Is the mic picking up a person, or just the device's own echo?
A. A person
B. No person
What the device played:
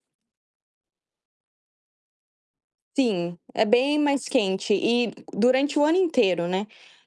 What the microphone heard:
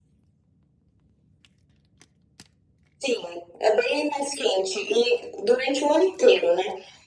B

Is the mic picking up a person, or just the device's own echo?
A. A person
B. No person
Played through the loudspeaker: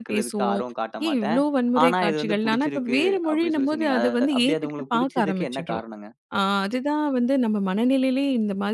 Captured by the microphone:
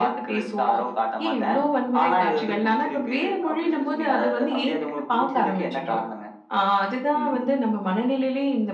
A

